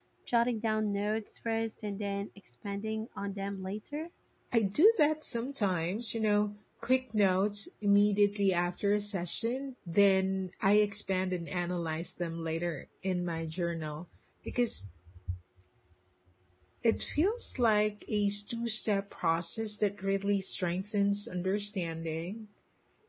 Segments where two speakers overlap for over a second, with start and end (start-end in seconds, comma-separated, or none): none